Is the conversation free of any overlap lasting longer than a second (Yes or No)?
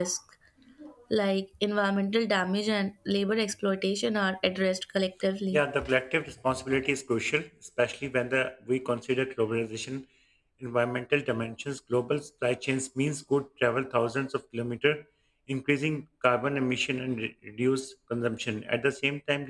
Yes